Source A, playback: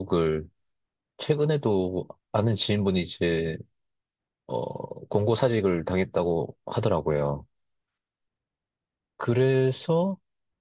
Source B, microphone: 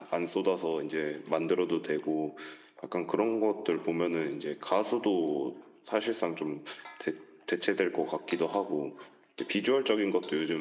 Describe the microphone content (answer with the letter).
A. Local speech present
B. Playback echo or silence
A